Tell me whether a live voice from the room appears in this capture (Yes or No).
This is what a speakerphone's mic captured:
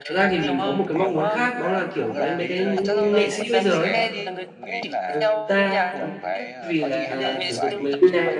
Yes